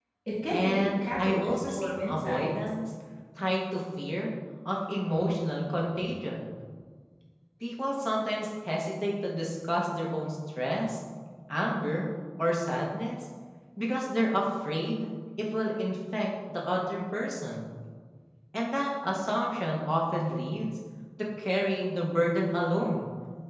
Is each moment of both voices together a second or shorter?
No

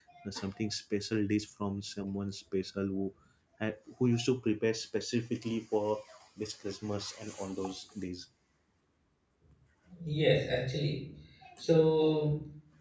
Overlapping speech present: No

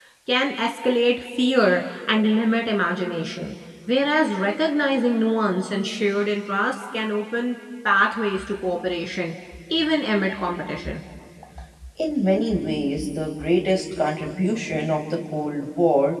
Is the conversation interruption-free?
Yes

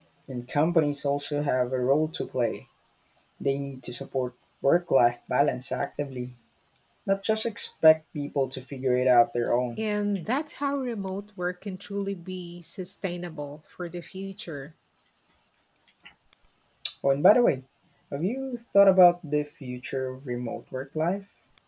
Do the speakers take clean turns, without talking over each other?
Yes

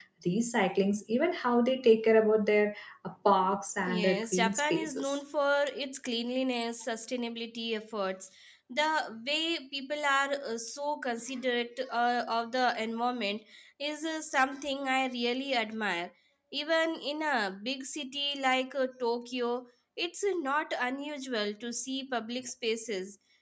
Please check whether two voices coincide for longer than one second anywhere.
Yes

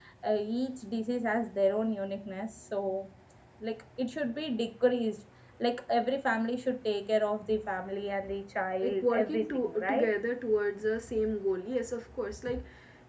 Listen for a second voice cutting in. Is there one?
Yes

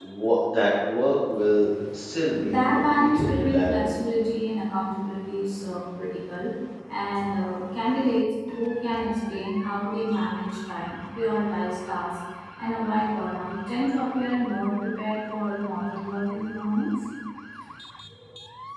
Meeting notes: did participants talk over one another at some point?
Yes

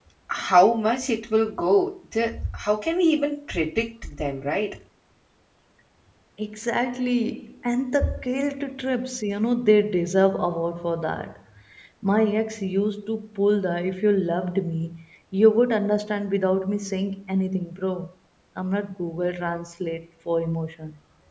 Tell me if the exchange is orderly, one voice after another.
Yes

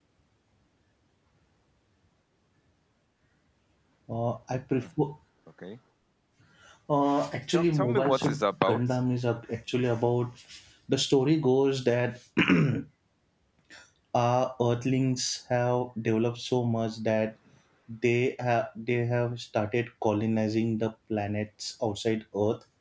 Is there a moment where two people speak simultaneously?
Yes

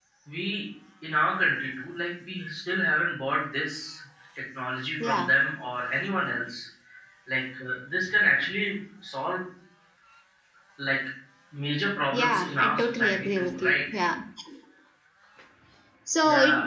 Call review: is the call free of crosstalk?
No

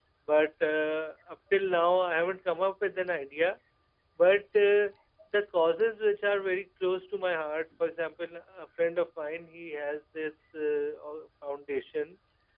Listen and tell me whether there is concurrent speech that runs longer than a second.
No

